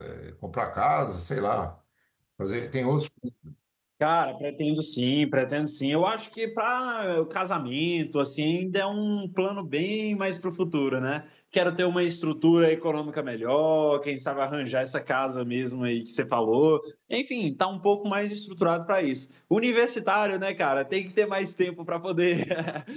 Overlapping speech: No

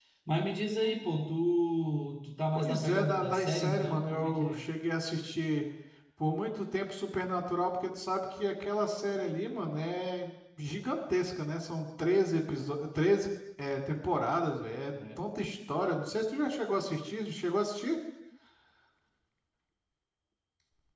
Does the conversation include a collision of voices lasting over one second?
Yes, from 2.5 s

